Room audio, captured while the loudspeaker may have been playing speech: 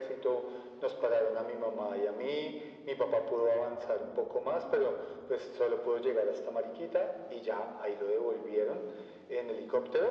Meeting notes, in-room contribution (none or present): none